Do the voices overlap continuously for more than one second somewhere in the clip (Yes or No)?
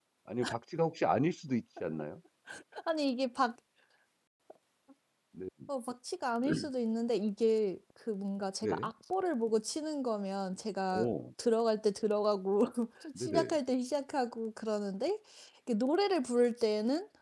No